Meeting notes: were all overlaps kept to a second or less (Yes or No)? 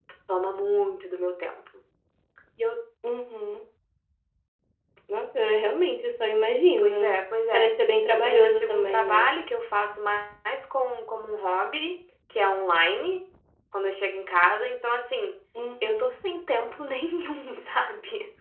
No